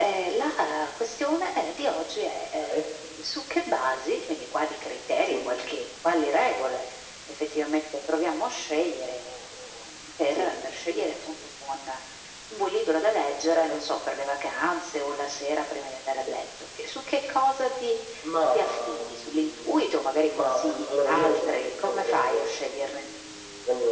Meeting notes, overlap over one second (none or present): present